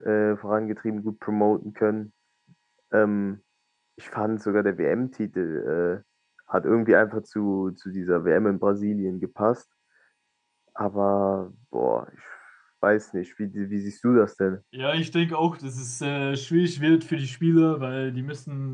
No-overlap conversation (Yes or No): Yes